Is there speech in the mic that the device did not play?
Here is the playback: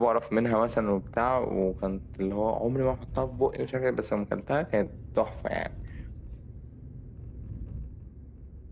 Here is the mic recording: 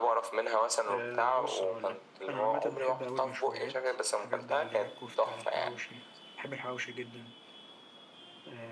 Yes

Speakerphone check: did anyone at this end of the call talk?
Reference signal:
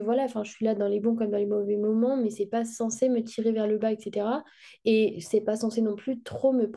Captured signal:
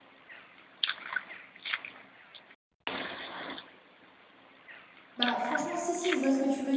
Yes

